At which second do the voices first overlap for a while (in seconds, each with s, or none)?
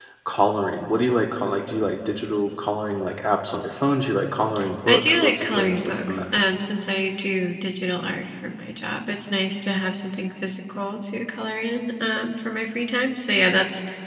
4.9 s